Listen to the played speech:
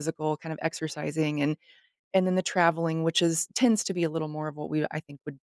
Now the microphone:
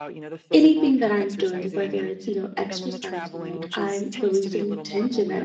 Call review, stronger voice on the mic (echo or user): user